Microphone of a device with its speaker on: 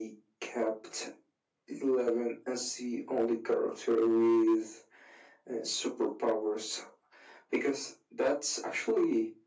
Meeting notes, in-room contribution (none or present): none